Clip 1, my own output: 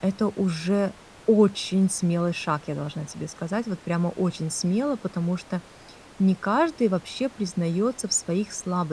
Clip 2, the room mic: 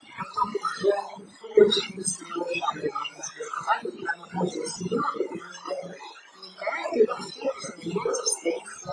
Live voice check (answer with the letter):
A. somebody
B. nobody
B